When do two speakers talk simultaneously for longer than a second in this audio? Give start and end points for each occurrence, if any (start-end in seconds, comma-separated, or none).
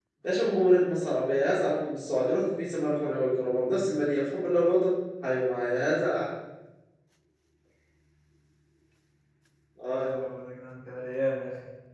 none